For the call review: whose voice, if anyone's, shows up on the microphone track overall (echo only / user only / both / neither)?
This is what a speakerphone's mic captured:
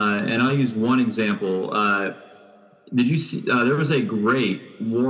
echo only